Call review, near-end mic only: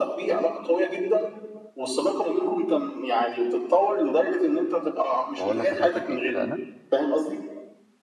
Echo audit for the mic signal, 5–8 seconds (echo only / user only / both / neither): both